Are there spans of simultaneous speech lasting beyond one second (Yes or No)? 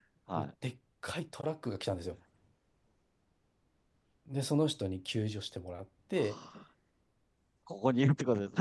No